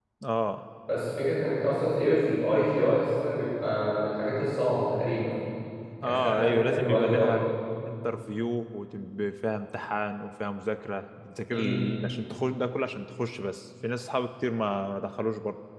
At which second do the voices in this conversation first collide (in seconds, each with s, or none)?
6.0 s